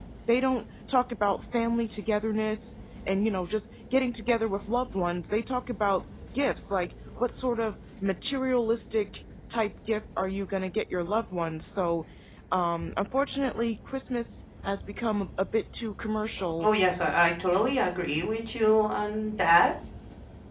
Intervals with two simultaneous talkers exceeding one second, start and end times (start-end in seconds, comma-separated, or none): none